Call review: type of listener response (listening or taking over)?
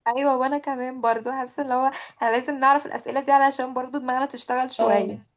taking over